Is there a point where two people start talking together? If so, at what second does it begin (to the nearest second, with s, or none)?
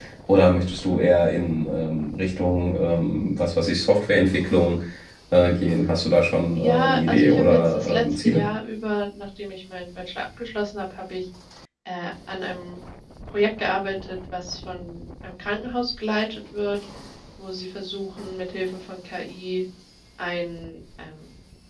7 s